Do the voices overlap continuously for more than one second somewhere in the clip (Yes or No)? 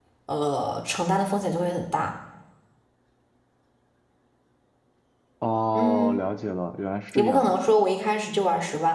No